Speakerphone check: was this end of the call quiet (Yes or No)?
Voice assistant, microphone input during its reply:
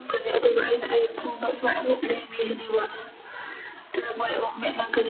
Yes